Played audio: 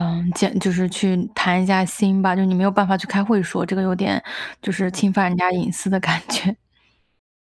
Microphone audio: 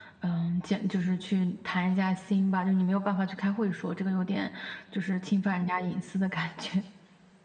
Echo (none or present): present